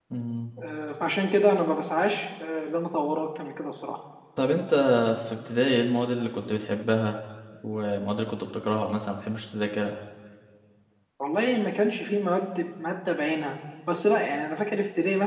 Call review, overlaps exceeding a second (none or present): none